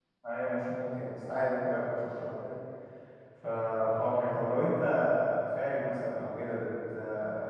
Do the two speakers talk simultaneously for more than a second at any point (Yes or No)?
No